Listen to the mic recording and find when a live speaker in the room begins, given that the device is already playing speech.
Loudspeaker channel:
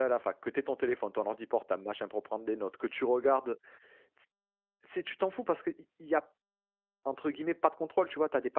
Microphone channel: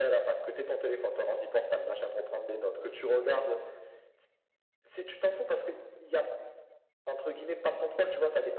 none

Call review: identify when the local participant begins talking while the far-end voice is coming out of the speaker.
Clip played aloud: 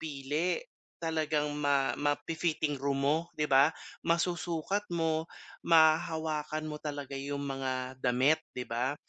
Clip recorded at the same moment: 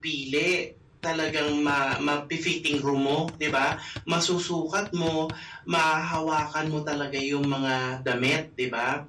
none

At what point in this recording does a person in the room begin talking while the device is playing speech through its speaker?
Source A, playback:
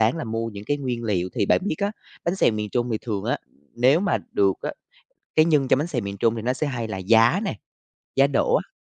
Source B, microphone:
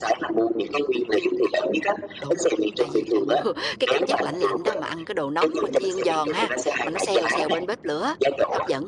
2.2 s

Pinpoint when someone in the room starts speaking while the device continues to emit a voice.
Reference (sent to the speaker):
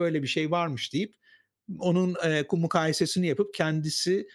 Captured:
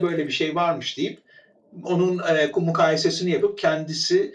none

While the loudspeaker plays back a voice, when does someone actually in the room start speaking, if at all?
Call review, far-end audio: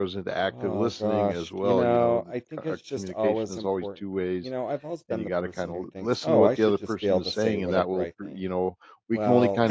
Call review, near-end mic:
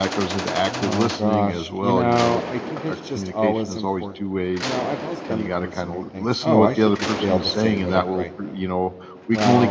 none

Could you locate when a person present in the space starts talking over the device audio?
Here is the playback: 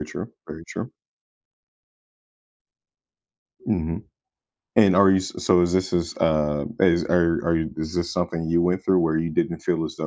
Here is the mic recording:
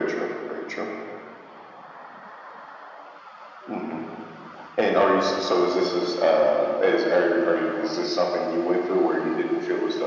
none

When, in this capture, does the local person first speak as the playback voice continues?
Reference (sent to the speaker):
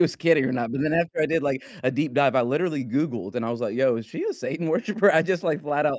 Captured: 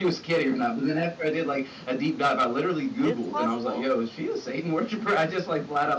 3.0 s

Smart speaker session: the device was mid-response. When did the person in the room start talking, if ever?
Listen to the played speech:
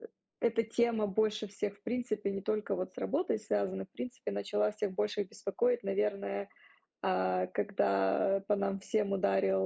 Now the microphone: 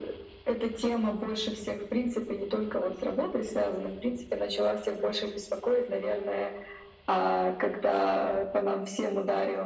none

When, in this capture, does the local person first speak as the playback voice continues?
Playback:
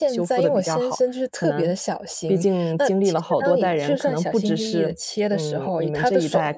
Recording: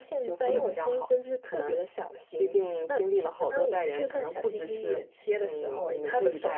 0.4 s

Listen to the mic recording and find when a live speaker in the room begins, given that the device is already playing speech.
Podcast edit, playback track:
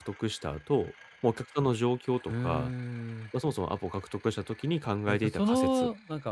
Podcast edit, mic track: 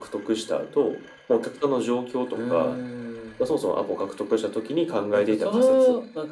none

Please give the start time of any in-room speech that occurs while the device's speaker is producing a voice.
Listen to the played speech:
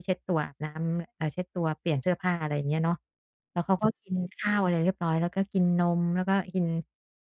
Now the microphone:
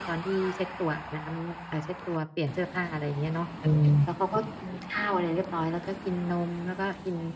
3.6 s

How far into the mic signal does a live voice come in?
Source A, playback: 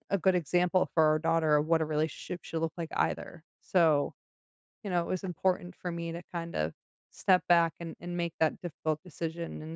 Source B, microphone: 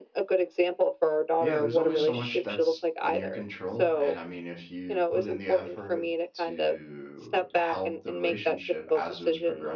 1.4 s

